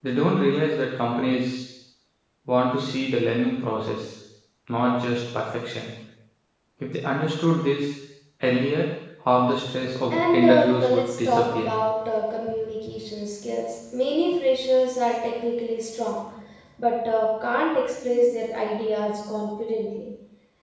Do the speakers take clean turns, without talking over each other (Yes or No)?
No